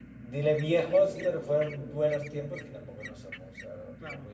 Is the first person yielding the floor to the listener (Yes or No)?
Yes